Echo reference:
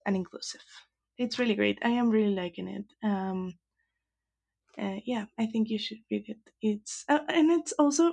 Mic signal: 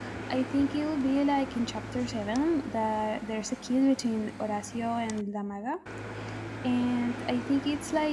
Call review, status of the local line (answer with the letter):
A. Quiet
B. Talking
B